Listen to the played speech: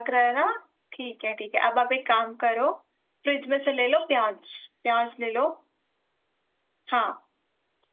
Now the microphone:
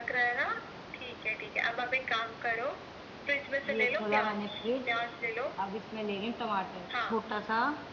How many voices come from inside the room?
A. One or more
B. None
A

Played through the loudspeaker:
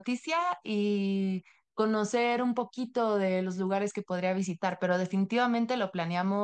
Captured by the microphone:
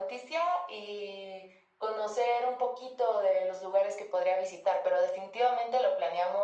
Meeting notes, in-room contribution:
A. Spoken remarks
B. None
B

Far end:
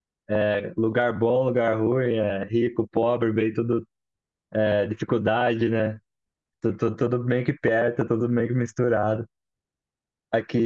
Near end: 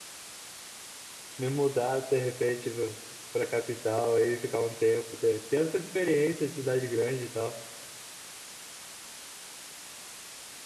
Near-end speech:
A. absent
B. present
B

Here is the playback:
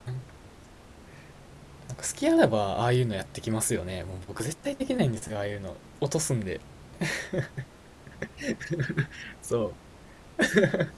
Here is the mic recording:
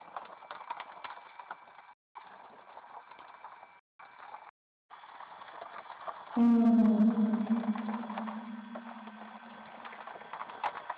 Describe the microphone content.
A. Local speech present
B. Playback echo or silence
A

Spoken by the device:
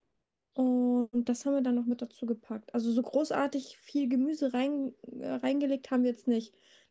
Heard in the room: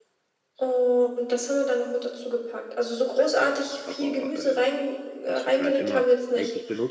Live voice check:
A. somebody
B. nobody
A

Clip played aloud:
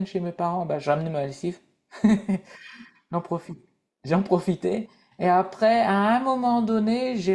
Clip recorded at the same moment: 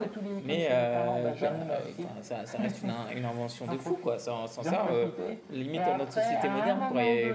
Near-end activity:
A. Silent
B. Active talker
B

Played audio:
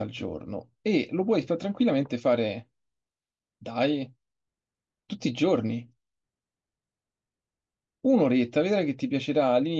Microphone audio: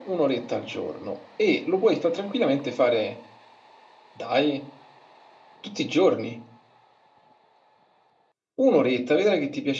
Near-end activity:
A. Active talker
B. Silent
B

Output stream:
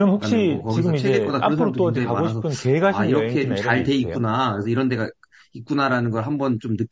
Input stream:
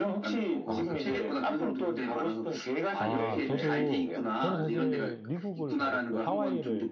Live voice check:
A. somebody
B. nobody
A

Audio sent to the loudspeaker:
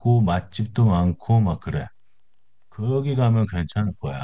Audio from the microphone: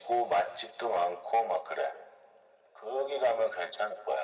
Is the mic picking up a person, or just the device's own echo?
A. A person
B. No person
B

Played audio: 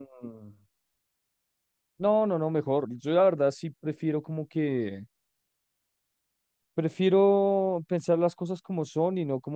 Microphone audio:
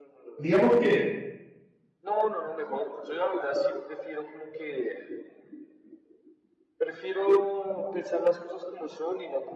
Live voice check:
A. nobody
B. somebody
B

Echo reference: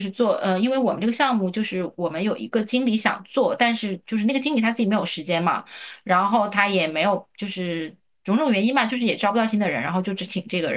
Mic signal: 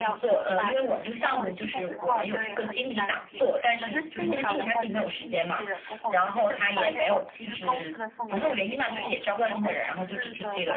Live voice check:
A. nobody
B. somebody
B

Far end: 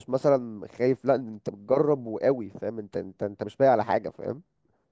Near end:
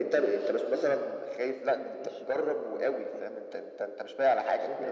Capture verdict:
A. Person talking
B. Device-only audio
A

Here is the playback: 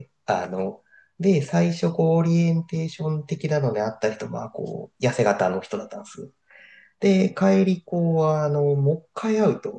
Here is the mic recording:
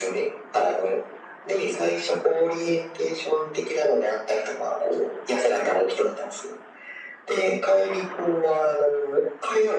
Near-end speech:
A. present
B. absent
B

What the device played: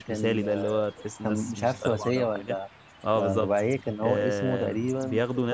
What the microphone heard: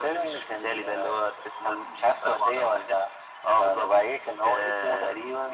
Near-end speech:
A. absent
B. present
A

